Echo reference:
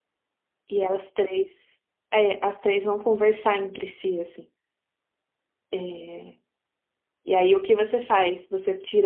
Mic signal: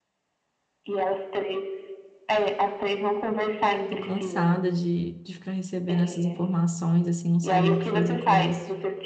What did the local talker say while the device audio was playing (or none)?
tô cansada de, de ficar recebendo essas informações, assim, não saber o que fazer com isso.